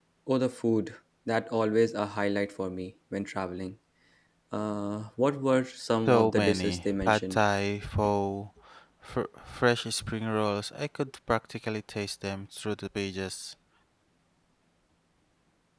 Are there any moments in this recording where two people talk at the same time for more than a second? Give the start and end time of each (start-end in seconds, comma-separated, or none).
6.0-7.4